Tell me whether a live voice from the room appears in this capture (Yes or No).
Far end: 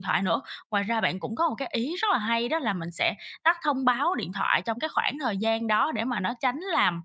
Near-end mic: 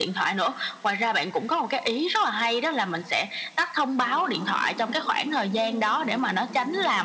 Yes